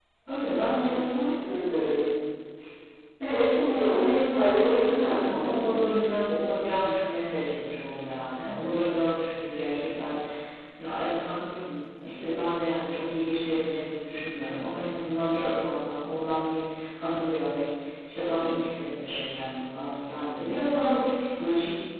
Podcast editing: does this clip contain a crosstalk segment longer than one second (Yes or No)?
Yes